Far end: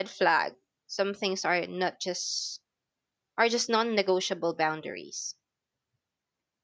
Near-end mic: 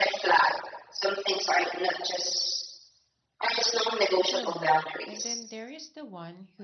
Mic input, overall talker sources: both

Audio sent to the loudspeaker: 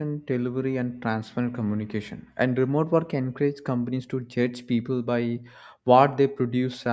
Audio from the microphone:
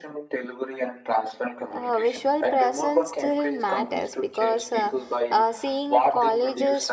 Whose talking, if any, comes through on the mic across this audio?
both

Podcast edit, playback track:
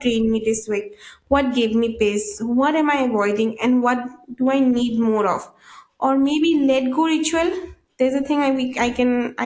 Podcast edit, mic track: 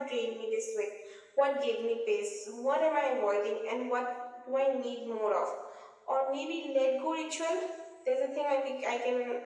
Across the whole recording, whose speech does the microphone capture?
echo only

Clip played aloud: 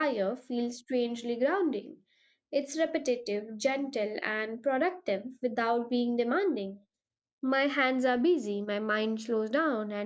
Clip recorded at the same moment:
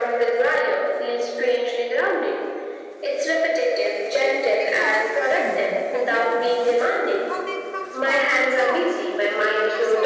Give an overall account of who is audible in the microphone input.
both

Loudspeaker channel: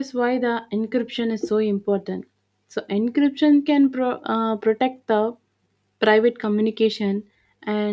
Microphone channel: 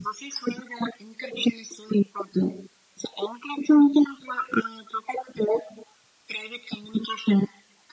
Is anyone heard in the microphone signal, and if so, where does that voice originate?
echo only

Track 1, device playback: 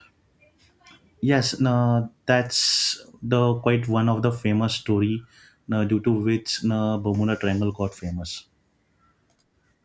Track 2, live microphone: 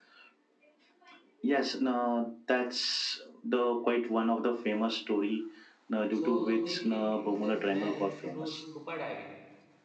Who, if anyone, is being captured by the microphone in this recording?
both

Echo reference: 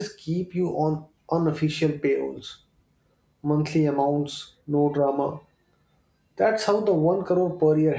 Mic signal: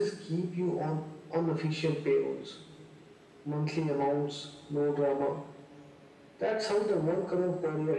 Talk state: echo only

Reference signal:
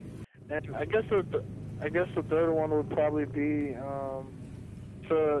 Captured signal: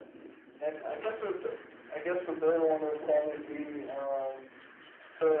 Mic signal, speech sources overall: echo only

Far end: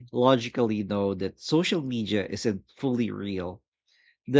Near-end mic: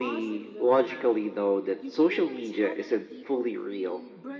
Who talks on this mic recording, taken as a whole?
both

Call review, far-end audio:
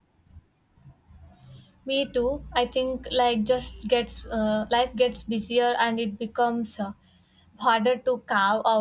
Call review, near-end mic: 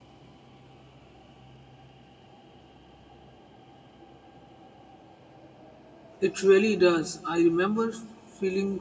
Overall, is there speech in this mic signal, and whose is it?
user only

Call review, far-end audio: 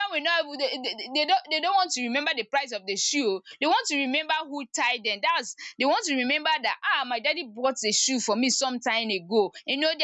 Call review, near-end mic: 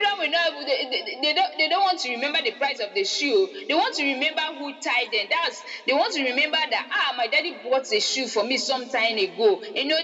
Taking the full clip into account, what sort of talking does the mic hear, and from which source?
echo only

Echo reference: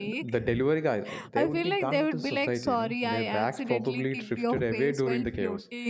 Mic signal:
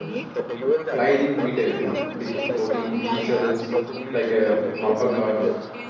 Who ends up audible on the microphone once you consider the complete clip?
both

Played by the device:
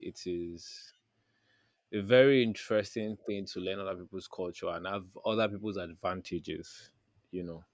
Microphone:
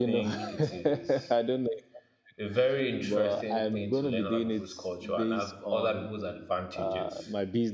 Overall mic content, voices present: both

